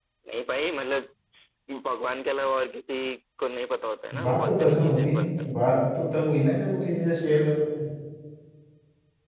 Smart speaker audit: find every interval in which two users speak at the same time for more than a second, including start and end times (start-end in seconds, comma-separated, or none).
4.2-5.5